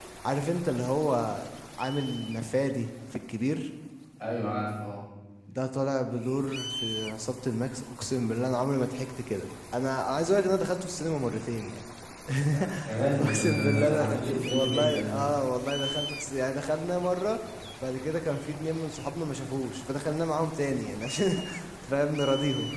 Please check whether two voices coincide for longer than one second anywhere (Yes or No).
Yes